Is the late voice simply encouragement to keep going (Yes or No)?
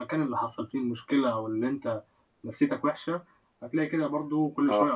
Yes